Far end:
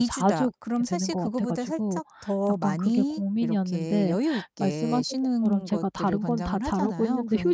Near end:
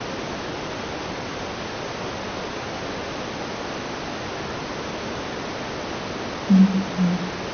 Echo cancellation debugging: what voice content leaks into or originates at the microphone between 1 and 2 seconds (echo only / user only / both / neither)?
neither